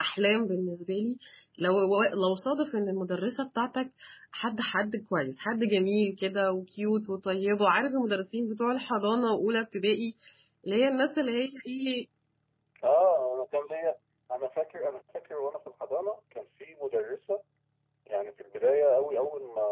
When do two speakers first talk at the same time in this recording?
none

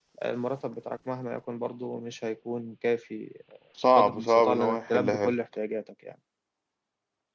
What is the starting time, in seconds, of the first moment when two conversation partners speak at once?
4.0 s

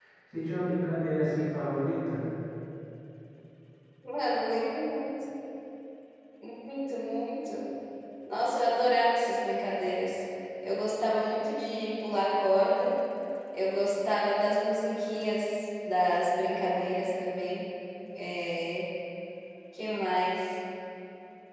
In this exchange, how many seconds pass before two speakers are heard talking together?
none

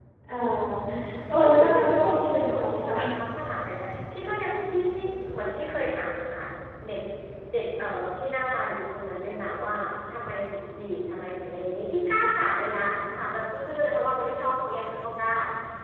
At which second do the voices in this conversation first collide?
1.3 s

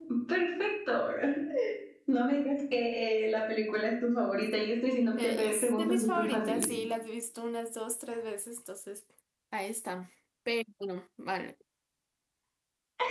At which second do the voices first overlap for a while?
5.2 s

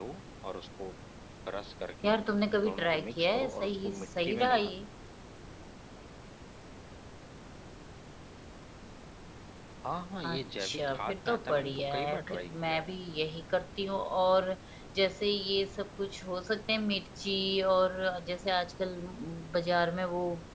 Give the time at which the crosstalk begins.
2.6 s

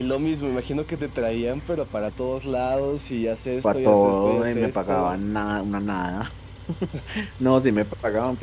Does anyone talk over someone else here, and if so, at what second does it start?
3.6 s

